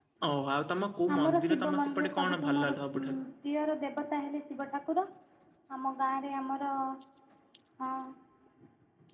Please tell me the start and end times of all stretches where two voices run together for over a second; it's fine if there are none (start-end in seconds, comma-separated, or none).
1.2-3.2